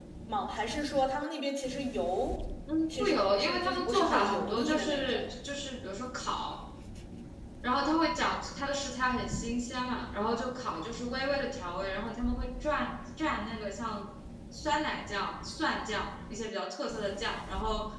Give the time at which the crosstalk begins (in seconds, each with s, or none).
3.0 s